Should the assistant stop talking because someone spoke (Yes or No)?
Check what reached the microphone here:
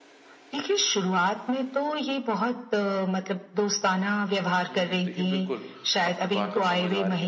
Yes